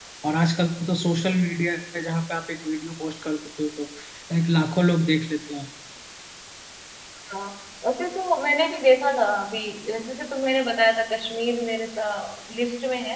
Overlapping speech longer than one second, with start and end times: none

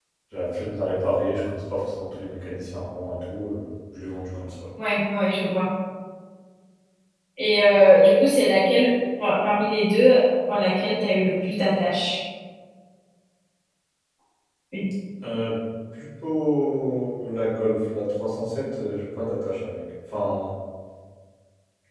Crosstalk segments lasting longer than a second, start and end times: none

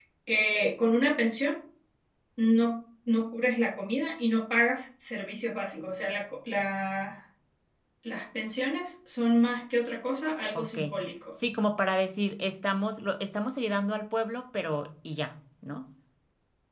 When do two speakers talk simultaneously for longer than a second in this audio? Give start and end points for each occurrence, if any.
none

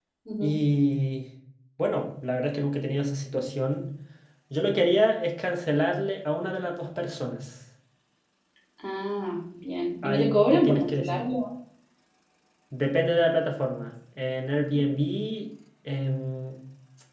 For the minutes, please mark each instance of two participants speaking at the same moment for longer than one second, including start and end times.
10.0-11.2

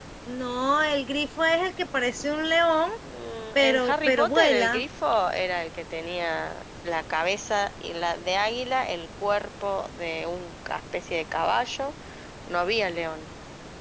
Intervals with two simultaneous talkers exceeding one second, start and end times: 3.6-4.8

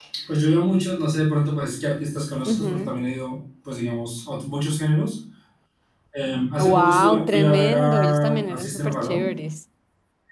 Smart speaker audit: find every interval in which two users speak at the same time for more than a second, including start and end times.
6.6-9.3

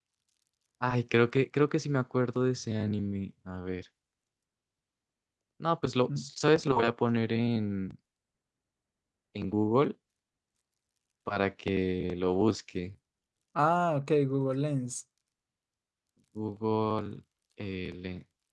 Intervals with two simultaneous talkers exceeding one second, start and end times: none

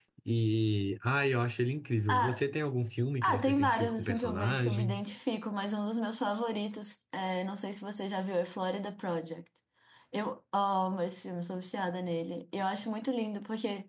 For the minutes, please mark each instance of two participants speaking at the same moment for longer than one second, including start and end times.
3.2-5.0

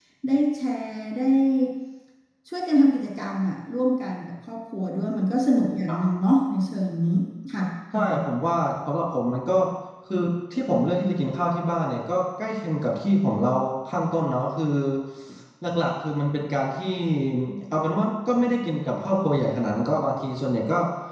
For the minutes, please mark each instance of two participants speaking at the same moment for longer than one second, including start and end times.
none

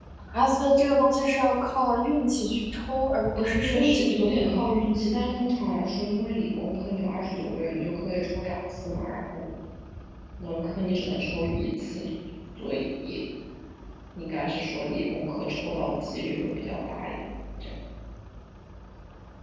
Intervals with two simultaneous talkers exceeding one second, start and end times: 3.4-4.7

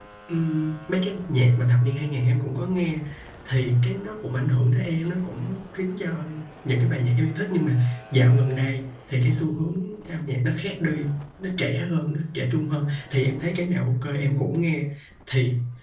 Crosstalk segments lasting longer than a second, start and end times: none

